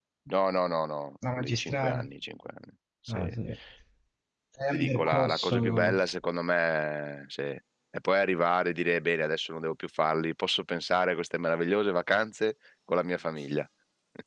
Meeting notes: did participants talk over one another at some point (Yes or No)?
Yes